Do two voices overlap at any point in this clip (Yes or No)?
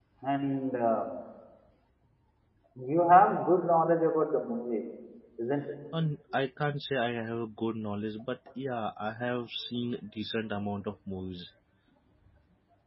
No